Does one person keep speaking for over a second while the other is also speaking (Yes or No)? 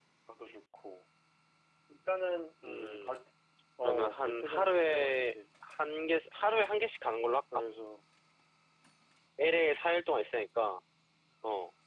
Yes